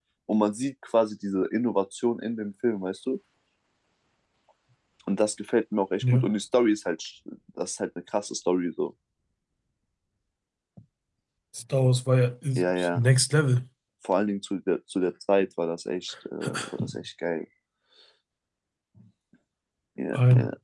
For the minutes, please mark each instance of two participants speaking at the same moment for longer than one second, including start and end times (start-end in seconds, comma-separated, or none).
none